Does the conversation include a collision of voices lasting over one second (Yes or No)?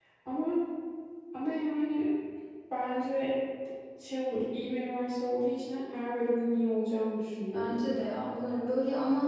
No